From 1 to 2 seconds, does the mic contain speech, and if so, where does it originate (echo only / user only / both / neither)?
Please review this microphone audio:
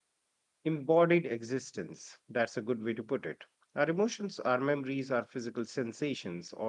user only